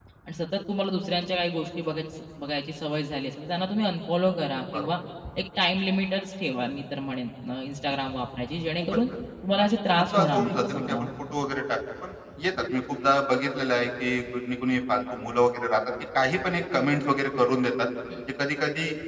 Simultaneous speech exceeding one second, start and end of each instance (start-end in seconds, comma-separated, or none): 9.6-11.1